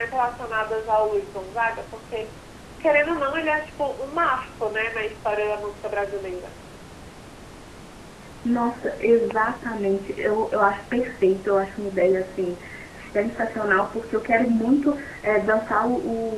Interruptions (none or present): none